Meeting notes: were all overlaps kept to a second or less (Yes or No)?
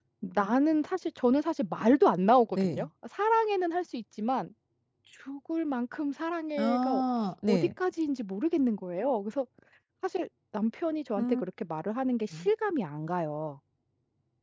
Yes